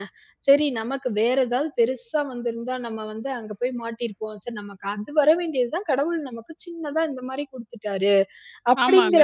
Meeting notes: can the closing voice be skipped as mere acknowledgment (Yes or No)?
No